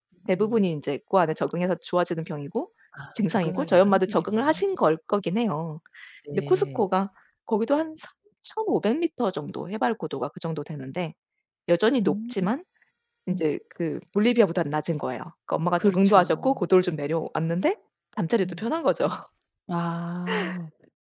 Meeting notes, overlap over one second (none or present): present